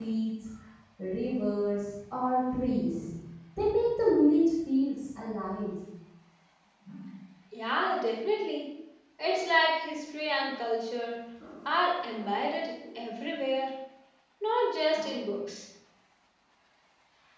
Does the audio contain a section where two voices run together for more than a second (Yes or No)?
No